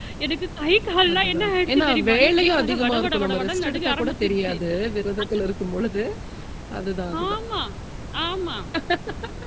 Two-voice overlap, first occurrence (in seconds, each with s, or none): 1.1 s